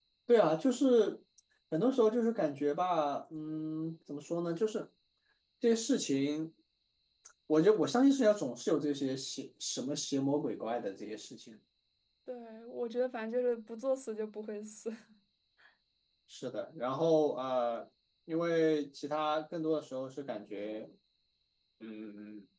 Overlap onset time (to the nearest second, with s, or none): none